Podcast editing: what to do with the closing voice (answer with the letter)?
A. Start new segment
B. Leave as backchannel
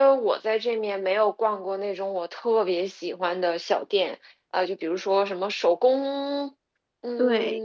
B